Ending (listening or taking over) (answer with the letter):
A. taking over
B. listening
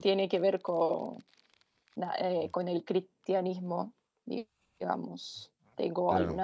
B